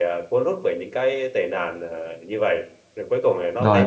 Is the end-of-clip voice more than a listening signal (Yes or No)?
Yes